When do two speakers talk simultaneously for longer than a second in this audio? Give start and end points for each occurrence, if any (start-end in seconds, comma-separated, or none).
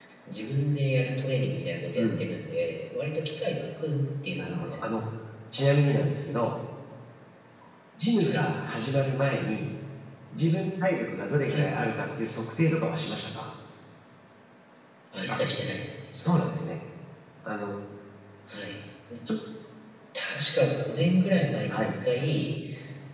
none